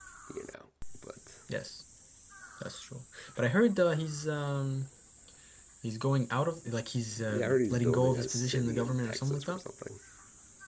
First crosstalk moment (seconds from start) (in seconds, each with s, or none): 7.3 s